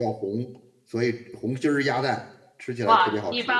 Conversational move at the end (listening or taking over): taking over